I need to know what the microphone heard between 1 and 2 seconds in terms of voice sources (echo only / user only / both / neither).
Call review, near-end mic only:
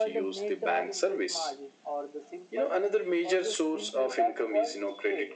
echo only